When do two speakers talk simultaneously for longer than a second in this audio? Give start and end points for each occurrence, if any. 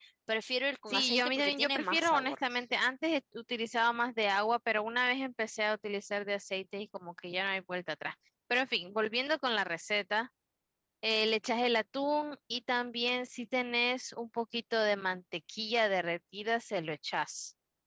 0.9-2.4

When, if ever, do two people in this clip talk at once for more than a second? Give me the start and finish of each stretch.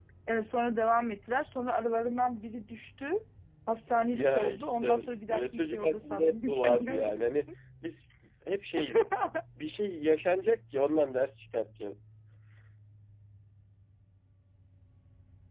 4.0-7.3

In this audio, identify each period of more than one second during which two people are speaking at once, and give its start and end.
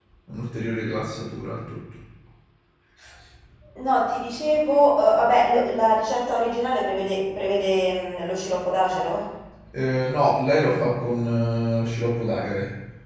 none

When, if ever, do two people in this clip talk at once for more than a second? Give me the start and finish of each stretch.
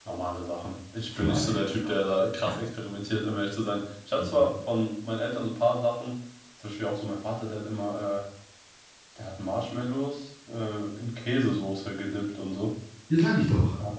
none

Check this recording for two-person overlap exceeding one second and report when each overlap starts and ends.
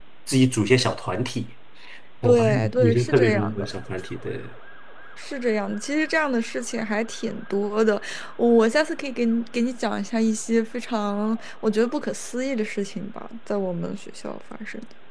2.2-3.7

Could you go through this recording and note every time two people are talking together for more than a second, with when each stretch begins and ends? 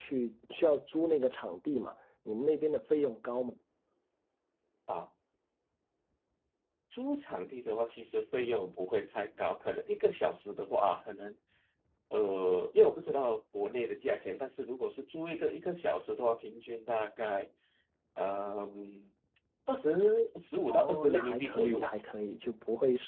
20.7-21.9

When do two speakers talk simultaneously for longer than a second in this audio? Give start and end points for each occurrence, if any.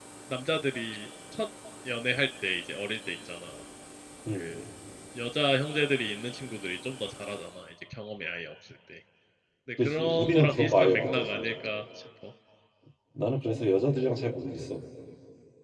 9.8-11.4

